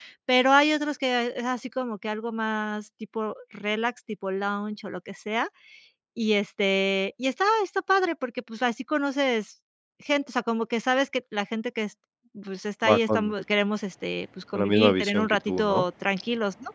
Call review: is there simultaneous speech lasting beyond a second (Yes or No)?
Yes